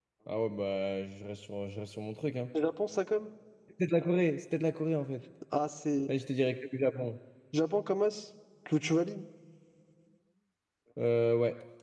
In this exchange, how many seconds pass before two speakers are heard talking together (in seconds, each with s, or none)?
none